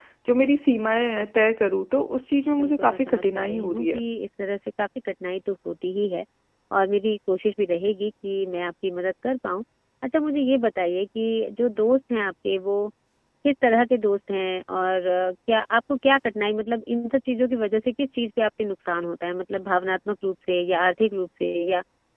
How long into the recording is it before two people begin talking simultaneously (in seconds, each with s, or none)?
2.6 s